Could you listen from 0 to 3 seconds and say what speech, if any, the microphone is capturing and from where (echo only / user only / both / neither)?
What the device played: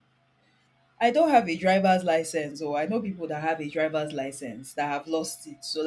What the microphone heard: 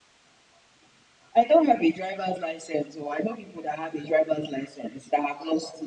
echo only